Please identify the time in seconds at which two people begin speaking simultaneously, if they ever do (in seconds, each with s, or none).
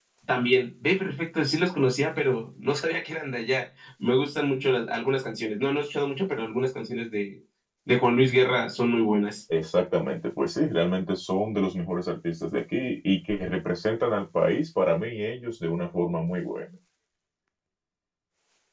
none